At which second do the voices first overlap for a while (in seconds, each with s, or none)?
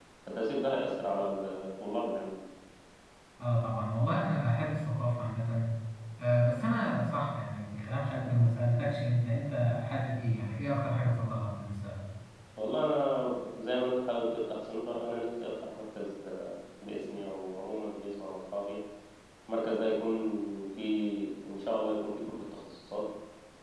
none